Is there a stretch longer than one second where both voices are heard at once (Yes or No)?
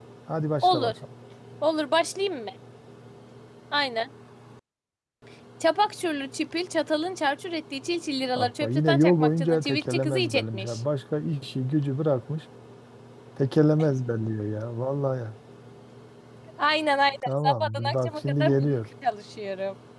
Yes